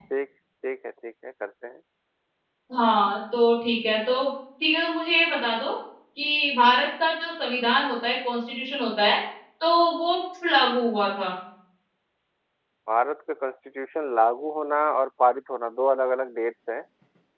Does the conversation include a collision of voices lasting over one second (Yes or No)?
No